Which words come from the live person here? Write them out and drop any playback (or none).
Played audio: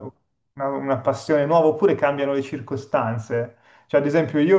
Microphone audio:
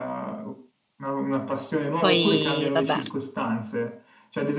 Poi, vabbè,